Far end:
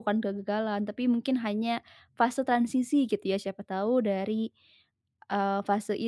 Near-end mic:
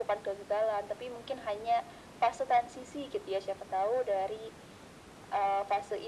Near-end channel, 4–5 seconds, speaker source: echo only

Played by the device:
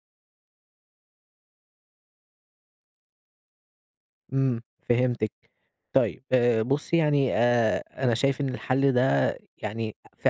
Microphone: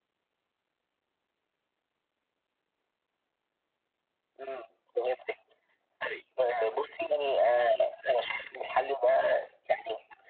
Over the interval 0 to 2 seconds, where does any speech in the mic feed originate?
neither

